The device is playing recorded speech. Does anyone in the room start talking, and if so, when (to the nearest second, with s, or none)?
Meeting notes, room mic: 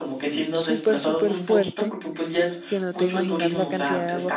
1 s